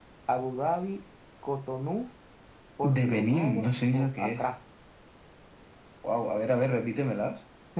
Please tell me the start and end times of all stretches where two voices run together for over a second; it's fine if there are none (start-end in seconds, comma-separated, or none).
3.0-4.4